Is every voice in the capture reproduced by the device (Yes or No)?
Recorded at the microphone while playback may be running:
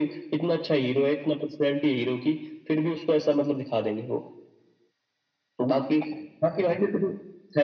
Yes